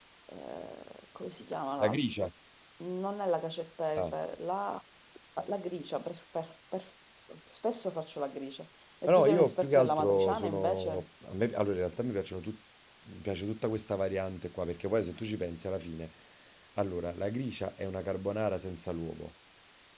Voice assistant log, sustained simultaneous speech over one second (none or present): present